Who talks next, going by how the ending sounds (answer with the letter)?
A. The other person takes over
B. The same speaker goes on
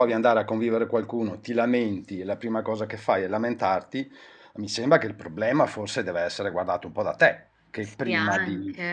A